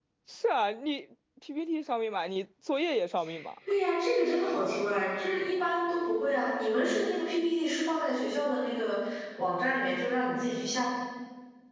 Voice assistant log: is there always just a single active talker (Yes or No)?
Yes